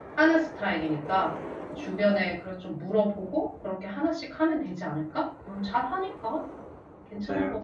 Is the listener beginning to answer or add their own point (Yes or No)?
Yes